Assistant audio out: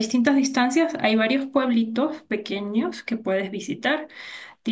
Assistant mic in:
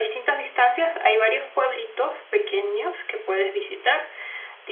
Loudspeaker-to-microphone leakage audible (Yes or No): Yes